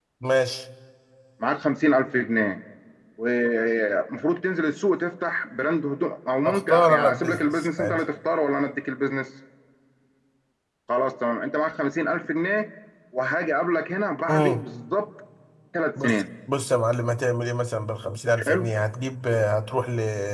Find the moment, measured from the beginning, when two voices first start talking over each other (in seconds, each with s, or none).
6.5 s